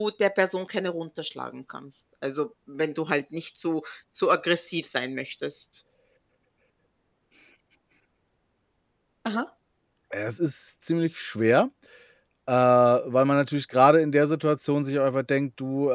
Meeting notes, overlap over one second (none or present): none